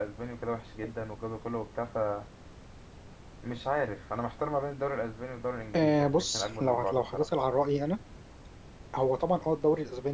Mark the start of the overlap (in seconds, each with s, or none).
5.7 s